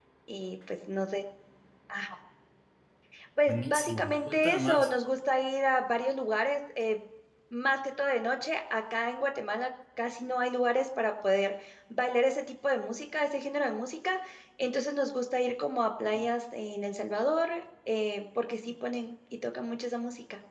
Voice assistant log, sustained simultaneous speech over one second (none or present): present